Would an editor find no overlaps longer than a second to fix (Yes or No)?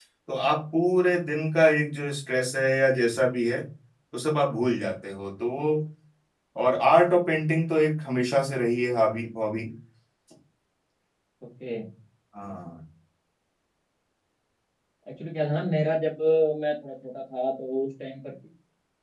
Yes